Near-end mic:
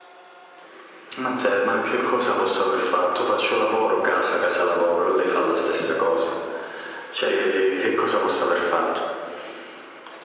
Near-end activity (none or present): none